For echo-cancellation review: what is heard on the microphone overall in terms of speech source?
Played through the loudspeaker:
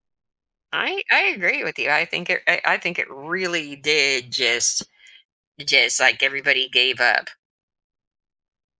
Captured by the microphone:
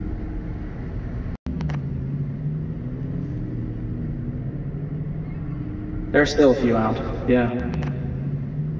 user only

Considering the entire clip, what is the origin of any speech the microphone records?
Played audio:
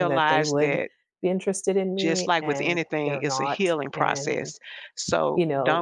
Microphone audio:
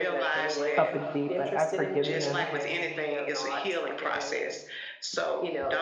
both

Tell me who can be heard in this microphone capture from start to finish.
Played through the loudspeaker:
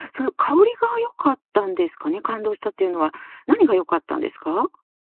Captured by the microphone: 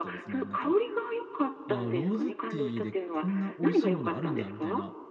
both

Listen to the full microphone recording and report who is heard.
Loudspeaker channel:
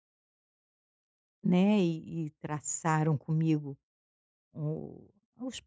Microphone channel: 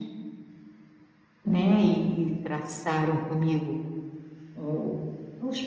echo only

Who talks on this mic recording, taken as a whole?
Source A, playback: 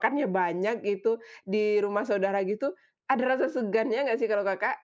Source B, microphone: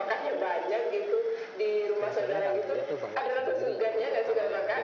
both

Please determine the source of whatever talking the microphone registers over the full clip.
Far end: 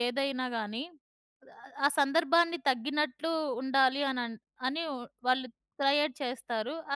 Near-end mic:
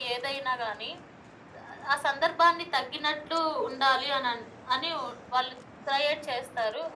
echo only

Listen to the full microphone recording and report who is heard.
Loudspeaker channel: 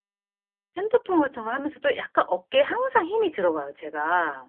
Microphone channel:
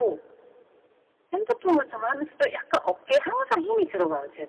echo only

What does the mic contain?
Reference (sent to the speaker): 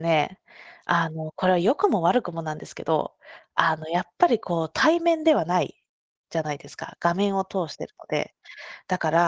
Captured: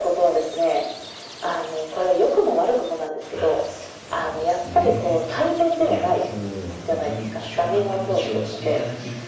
both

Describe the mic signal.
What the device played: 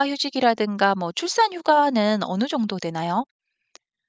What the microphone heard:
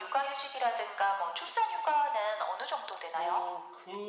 both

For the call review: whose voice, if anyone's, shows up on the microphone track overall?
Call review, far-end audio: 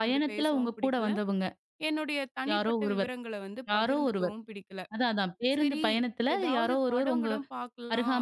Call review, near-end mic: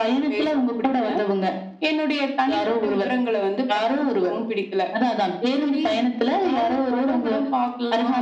echo only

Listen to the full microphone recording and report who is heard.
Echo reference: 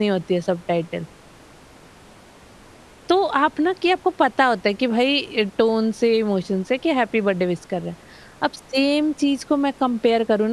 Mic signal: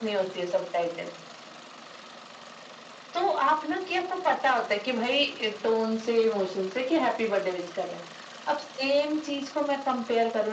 echo only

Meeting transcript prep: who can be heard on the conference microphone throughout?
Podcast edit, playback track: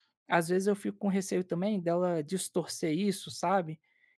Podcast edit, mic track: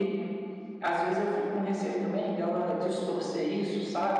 echo only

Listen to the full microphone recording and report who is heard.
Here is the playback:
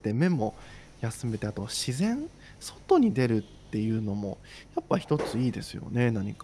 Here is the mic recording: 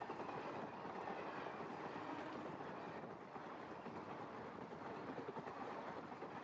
neither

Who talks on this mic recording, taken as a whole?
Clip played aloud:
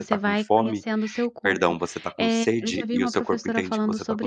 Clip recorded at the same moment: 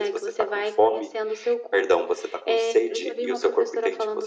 echo only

